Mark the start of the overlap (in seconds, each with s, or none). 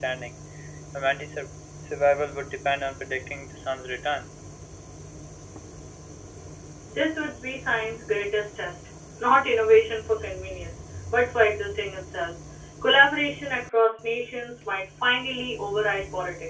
none